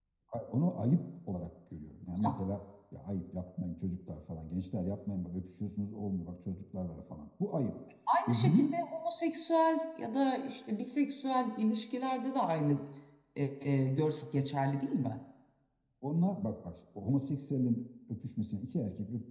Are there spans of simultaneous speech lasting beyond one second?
No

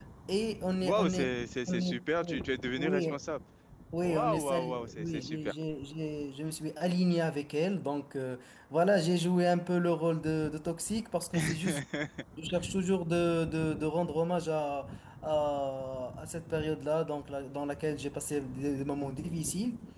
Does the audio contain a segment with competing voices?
Yes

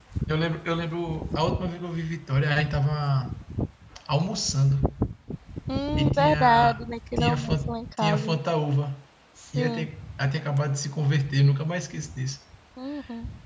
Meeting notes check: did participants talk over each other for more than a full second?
Yes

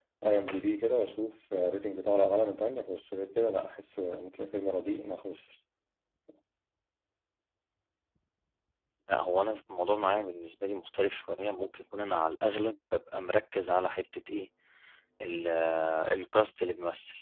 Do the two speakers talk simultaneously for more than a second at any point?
No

